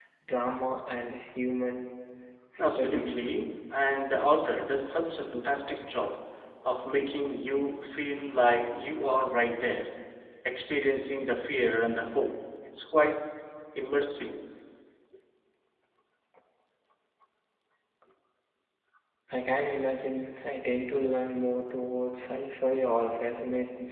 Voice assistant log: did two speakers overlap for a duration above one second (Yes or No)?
No